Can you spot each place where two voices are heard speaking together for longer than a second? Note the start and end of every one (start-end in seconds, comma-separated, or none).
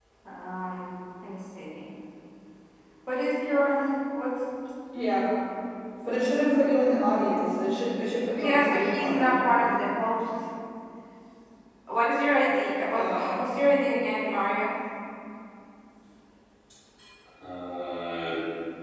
8.3-9.7